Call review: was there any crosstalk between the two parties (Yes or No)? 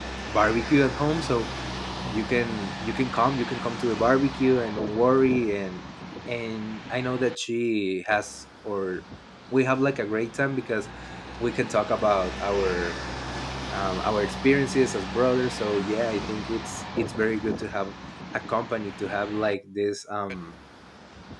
No